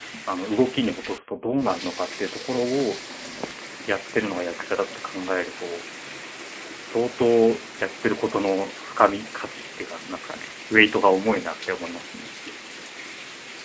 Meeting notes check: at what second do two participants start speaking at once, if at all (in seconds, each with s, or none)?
none